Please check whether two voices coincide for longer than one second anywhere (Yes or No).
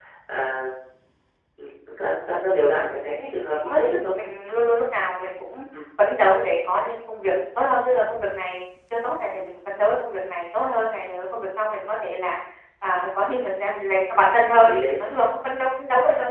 No